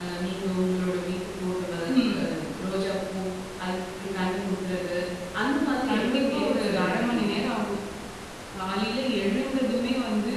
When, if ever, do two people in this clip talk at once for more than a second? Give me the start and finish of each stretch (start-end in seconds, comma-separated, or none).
5.9-7.2